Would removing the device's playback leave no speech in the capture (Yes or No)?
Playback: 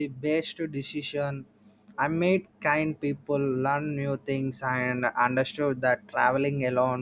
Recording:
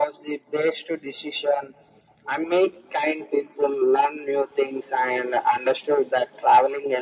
Yes